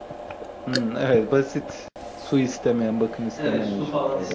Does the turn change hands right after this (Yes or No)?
Yes